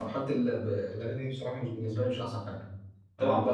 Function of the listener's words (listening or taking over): listening